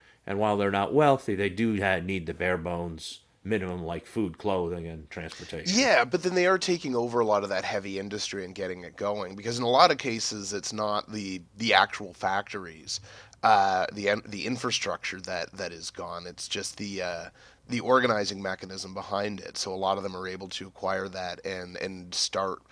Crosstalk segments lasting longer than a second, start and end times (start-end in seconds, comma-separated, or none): none